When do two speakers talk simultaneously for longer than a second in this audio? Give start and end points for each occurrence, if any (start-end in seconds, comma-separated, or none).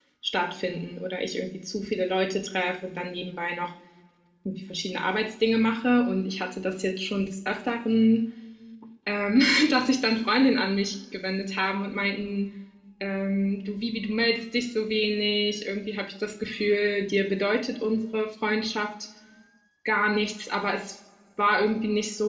none